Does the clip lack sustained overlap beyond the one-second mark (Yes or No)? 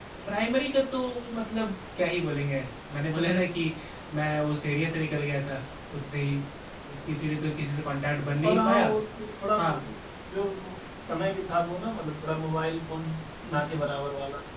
Yes